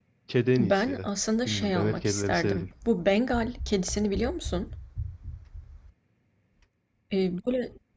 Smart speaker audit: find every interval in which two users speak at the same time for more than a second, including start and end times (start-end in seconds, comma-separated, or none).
1.4-2.7